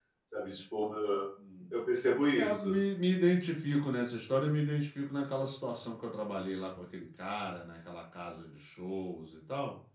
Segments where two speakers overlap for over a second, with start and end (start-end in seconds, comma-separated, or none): none